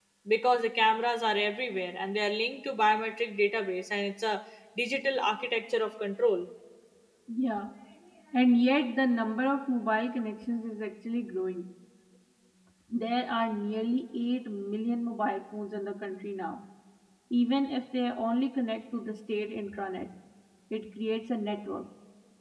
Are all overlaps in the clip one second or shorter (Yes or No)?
Yes